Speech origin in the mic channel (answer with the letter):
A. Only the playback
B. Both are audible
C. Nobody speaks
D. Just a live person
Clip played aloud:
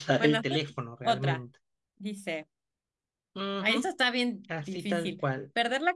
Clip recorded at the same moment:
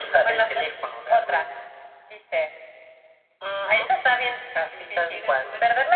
B